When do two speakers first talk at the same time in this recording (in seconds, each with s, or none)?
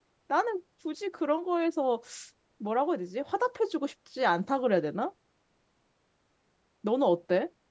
none